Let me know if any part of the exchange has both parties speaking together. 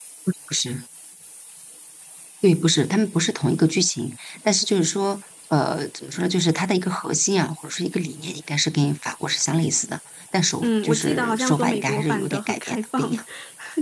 Yes, from 10.6 s

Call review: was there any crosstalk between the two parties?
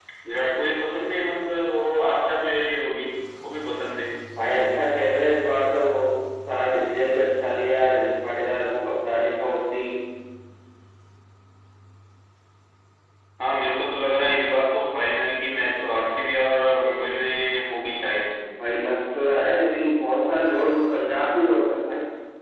No

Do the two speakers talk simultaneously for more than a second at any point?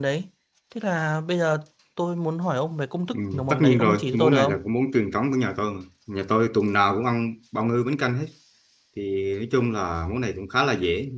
Yes, from 3.1 s

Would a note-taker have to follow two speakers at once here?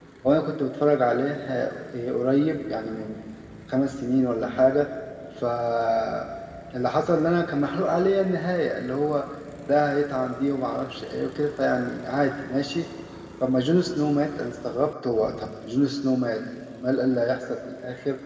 No

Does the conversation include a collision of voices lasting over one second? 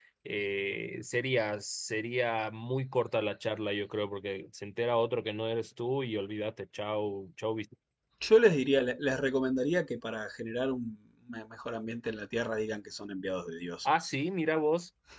No

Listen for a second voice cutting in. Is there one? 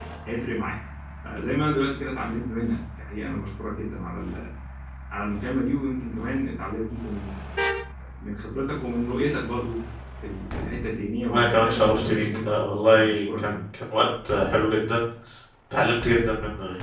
Yes, from 11.3 s

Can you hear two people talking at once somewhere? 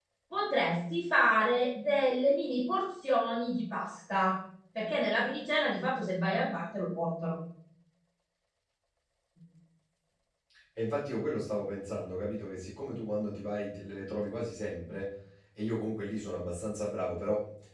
No

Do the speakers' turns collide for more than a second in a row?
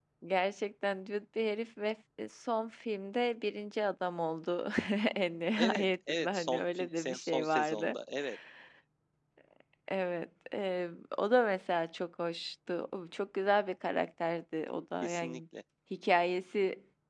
Yes, from 5.6 s

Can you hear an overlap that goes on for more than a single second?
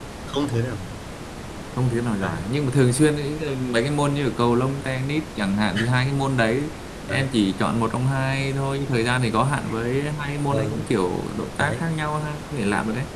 No

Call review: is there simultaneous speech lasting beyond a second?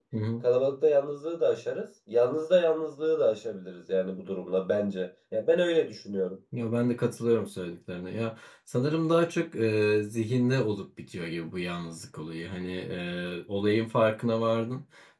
No

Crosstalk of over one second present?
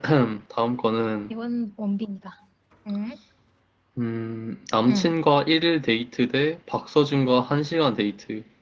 No

